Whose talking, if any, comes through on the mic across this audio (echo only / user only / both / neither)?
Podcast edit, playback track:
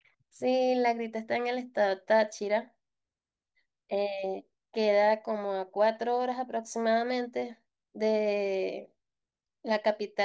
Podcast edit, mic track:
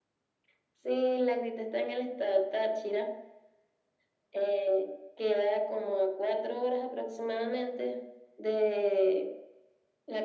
echo only